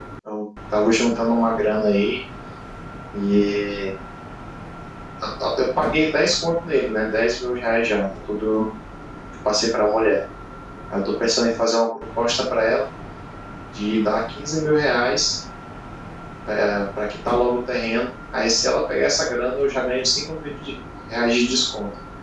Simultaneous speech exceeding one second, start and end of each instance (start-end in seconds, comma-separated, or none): none